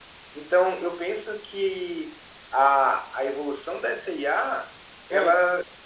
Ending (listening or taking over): listening